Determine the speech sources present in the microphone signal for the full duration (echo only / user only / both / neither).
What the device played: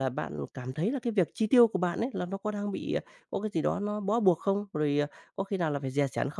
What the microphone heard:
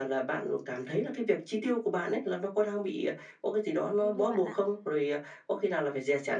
both